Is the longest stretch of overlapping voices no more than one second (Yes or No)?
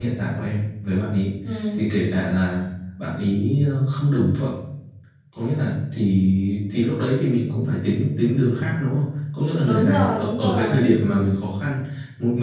No